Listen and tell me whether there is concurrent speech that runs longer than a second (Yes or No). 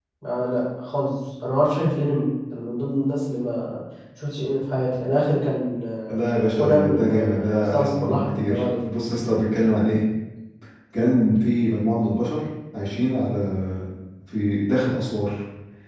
Yes